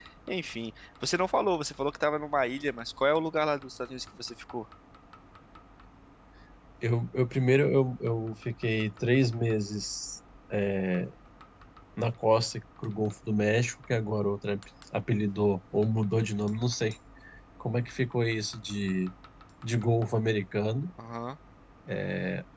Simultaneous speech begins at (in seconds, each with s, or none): none